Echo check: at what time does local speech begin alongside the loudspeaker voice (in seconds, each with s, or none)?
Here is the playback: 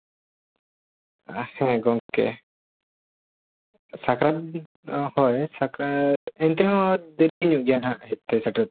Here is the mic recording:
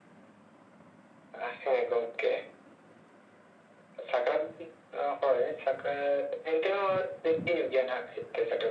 none